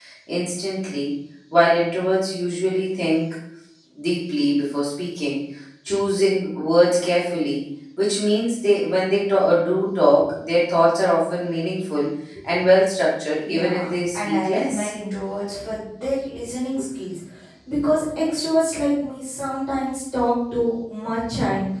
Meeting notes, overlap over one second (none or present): present